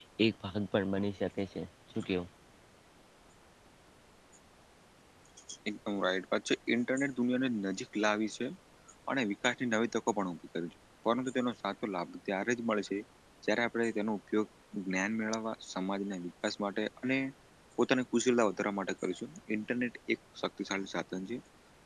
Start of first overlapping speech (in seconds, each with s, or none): none